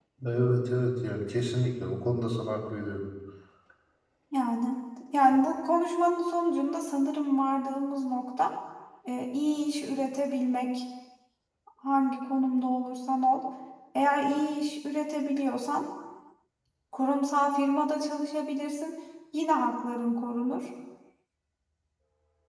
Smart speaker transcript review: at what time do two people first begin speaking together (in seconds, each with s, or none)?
none